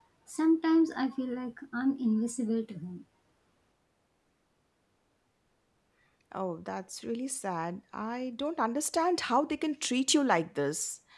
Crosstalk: none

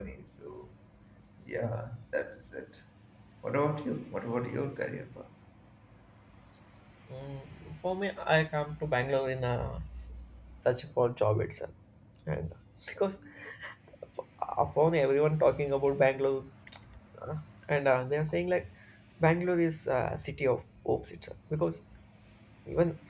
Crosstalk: none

